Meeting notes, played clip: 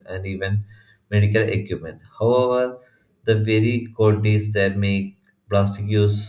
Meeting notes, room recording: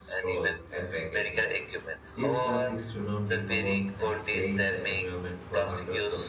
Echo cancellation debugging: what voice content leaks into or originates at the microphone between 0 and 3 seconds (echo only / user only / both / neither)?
both